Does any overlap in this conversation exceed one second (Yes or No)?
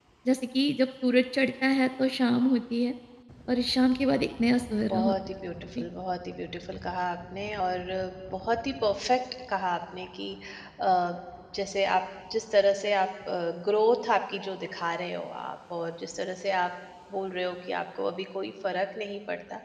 No